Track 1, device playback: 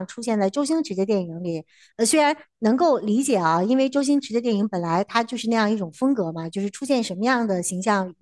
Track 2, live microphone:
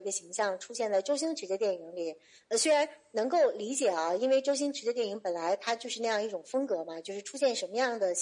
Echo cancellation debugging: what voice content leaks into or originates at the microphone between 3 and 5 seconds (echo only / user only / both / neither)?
echo only